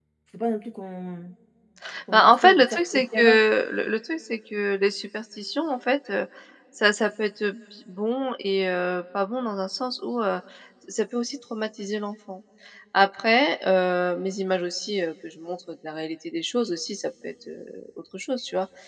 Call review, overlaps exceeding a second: present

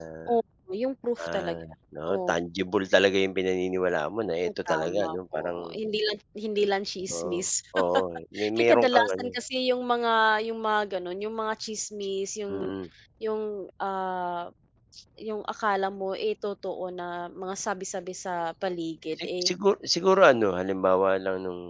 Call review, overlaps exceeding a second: present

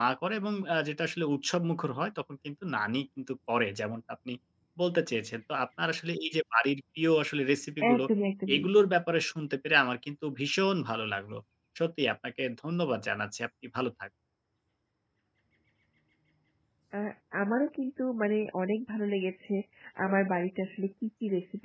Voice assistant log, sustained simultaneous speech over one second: none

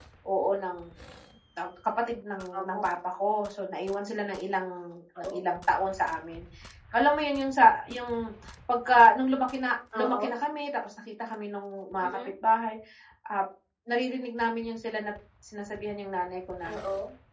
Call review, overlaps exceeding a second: none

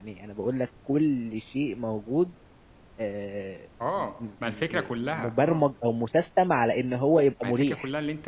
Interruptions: present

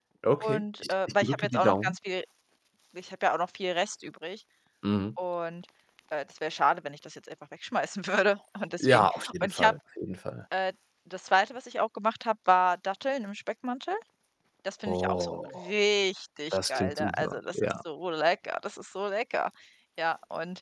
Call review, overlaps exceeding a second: present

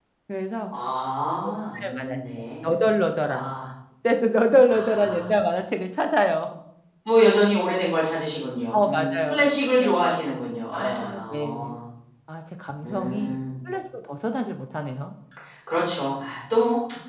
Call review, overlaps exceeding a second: present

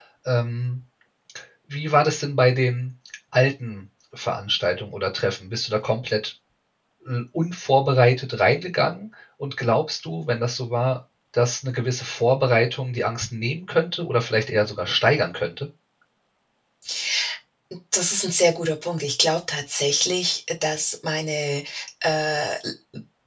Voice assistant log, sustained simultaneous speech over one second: none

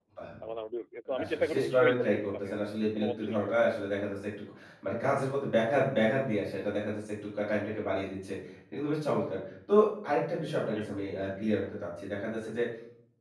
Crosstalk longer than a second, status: present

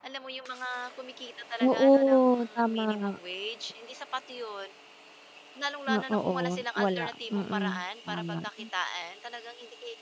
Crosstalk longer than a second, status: present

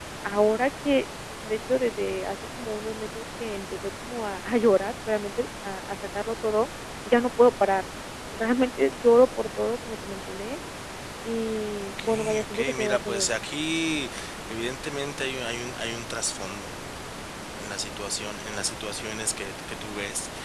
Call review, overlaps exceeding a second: present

